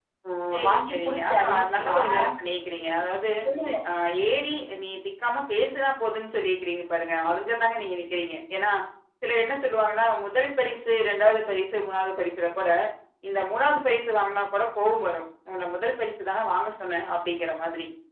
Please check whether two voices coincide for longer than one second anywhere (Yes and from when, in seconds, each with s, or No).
Yes, from 0.7 s